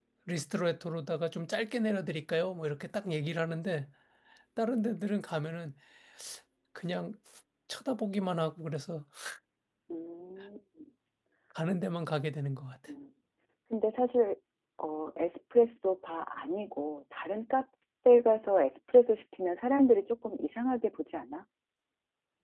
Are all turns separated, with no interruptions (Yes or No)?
Yes